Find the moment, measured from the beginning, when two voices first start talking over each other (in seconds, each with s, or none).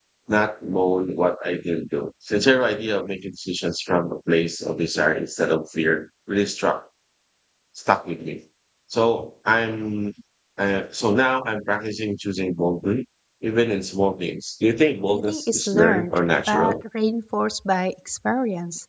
15.1 s